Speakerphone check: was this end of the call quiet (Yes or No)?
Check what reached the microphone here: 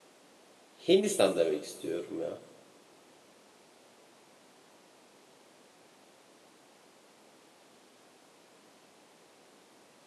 No